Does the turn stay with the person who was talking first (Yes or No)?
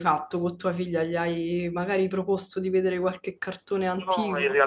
No